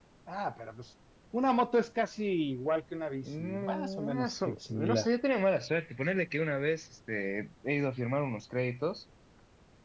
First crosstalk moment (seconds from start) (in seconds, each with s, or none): 3.2 s